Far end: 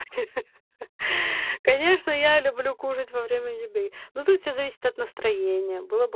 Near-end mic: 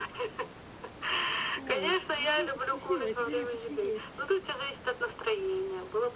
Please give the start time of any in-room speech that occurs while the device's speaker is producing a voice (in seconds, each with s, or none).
1.6 s